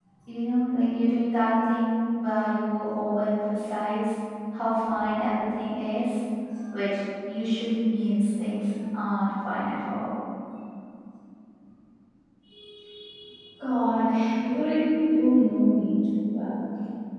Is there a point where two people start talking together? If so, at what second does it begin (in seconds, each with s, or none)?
none